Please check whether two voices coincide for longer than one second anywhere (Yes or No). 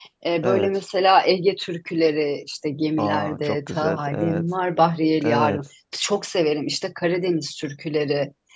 Yes